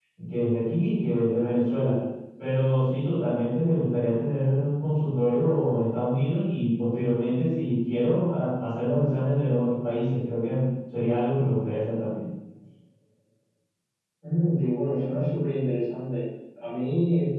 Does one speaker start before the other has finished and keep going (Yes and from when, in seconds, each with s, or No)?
No